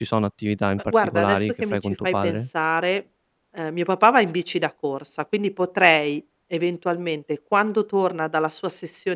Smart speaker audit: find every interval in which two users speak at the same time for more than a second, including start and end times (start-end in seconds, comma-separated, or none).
0.9-2.5